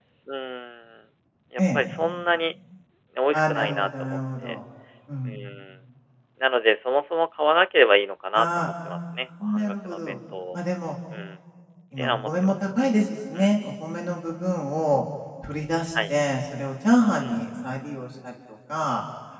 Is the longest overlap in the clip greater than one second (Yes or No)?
Yes